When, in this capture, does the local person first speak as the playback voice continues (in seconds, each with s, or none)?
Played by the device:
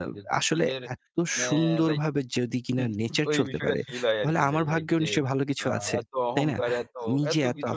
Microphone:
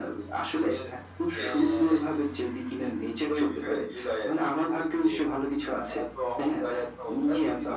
1.3 s